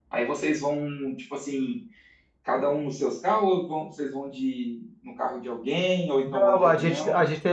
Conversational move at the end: taking over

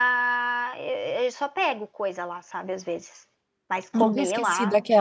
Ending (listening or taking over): taking over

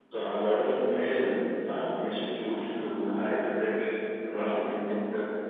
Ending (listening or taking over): listening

